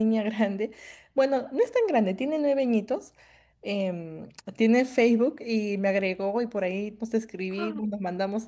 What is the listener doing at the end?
listening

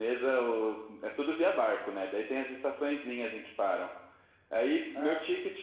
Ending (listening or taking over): listening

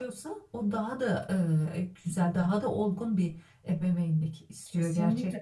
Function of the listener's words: taking over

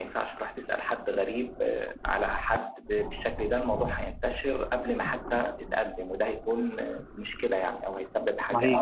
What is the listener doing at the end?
taking over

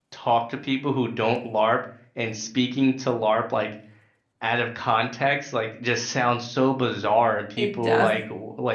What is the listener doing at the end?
listening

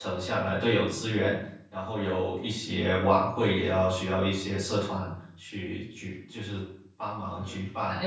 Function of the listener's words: taking over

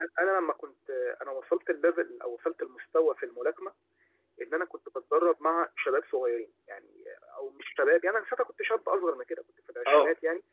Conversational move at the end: listening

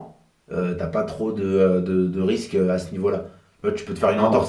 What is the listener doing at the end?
listening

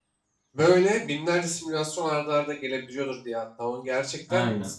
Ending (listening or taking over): listening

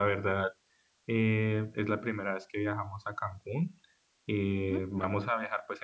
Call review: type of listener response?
listening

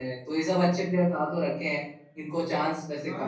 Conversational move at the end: taking over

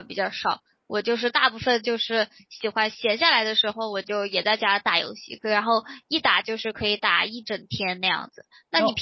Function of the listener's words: listening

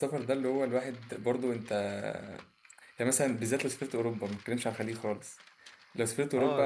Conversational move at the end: listening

